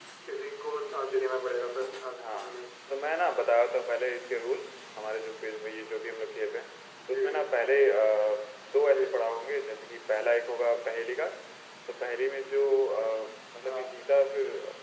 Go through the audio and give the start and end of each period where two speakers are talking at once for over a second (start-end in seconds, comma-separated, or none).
none